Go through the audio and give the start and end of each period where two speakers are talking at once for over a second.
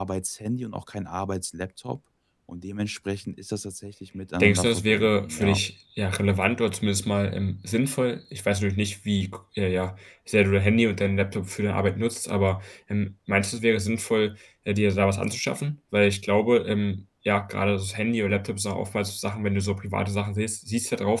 4.4-5.6

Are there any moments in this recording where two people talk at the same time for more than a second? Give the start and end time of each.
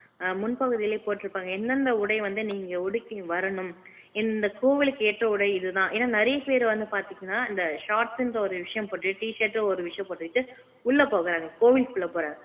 none

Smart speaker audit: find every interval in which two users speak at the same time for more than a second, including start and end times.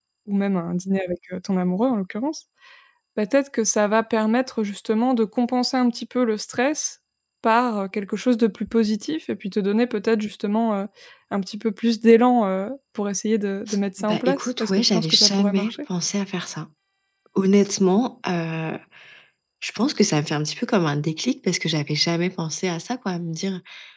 14.0-15.7

